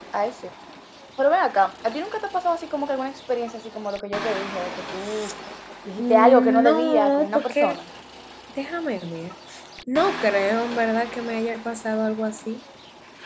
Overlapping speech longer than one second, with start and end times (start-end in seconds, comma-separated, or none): 6.0-7.8